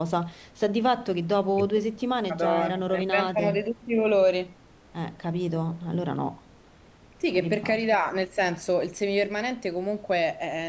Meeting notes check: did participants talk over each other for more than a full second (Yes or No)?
Yes